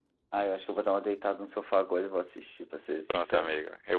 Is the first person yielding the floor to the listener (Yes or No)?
Yes